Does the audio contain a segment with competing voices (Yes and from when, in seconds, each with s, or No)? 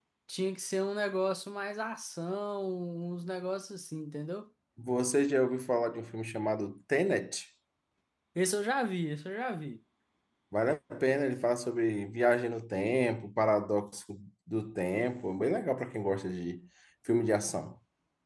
No